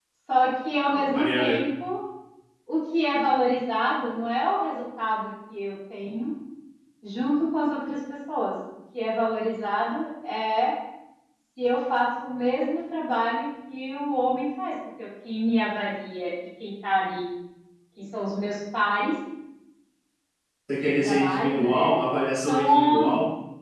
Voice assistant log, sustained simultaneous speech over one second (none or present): present